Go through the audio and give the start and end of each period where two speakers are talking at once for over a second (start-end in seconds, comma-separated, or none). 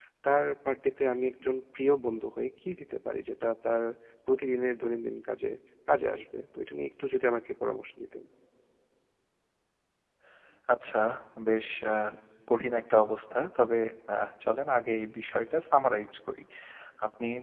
none